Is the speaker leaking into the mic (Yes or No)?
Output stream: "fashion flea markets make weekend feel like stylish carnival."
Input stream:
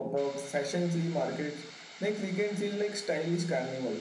Yes